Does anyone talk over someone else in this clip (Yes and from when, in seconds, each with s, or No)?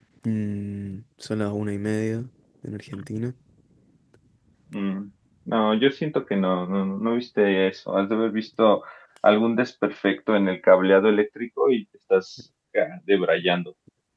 No